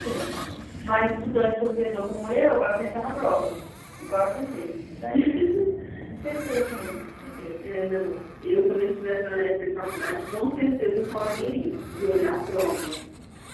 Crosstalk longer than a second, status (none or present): none